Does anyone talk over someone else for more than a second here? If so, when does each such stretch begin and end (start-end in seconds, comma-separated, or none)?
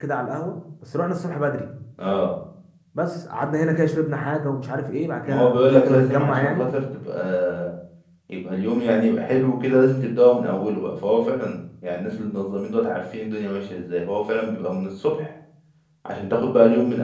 5.2-6.7